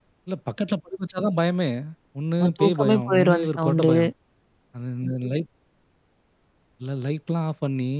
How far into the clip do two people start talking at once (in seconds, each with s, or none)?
2.4 s